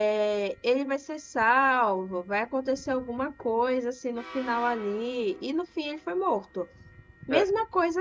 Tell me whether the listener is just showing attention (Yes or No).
Yes